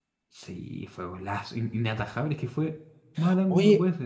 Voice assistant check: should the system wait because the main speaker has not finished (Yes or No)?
No